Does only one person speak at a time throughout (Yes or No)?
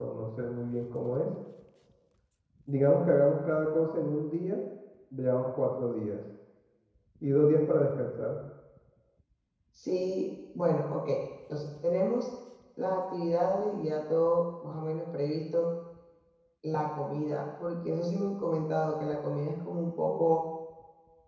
Yes